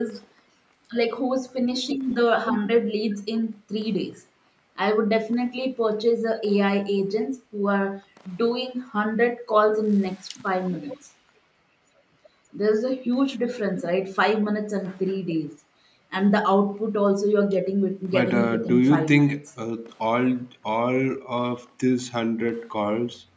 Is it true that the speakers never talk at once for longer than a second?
No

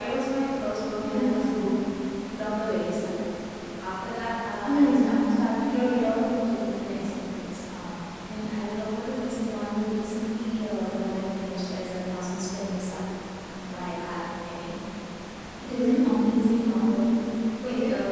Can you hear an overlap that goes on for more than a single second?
No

